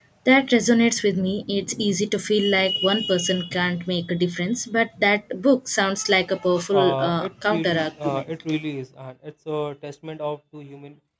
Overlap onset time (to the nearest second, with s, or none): 7 s